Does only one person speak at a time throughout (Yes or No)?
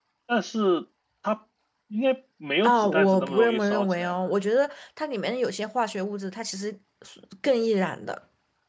No